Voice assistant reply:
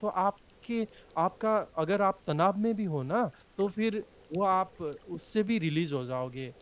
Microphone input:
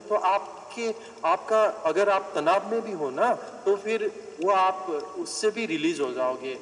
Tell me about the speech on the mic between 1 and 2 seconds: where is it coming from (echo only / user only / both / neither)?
echo only